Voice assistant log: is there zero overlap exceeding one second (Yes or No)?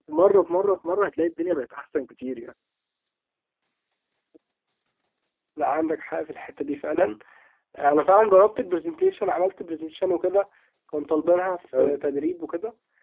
Yes